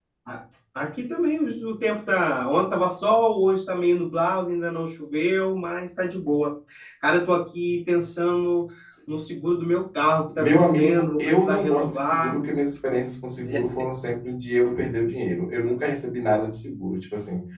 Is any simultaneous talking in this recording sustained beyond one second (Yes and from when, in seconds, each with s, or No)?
Yes, from 10.4 s